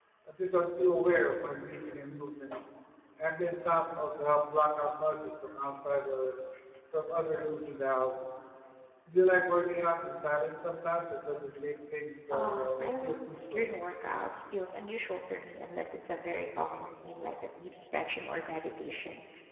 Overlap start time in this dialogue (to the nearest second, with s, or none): 12 s